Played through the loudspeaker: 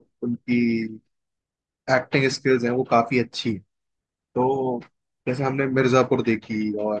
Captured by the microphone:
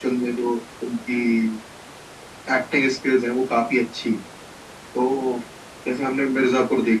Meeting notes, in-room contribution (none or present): none